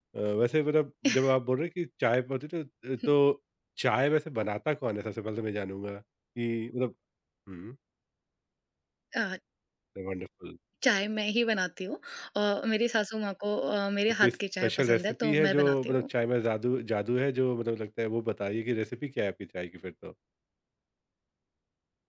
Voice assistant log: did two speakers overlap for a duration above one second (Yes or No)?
Yes